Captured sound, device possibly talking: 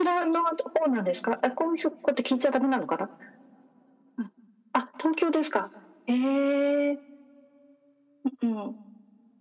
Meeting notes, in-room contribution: none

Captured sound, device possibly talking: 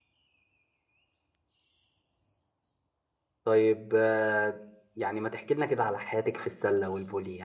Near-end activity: present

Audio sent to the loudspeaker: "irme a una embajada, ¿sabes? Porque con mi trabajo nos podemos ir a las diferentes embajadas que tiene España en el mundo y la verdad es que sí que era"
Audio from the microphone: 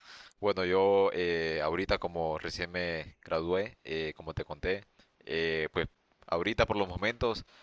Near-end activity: present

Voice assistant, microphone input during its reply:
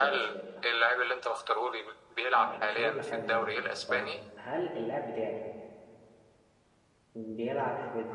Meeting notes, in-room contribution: present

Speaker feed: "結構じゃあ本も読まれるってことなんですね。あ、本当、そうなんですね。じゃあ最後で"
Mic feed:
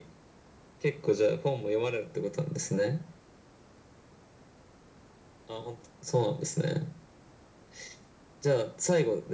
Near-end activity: none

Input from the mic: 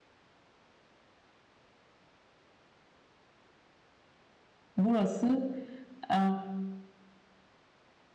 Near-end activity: present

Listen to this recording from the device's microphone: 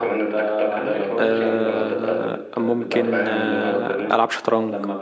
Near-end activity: present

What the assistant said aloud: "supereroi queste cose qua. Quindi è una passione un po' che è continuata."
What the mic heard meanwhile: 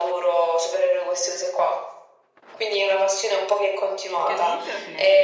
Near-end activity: present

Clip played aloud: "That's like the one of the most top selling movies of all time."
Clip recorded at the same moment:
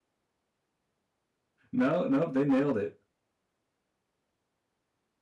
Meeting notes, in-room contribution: present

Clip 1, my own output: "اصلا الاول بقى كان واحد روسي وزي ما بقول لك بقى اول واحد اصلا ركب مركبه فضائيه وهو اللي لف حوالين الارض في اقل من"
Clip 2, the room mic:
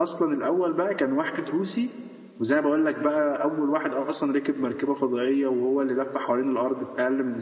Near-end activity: none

